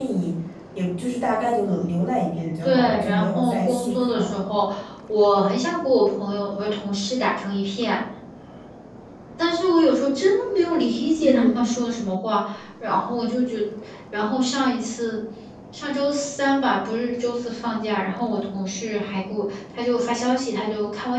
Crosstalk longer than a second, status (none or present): present